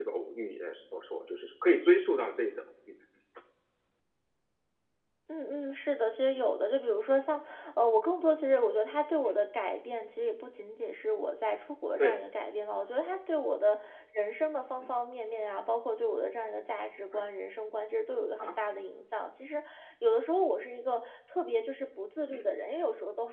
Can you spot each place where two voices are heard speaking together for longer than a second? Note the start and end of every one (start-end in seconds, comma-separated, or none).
none